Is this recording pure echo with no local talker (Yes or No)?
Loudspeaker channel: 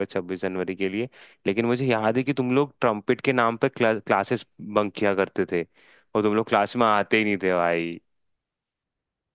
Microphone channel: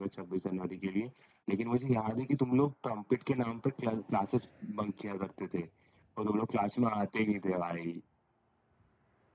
Yes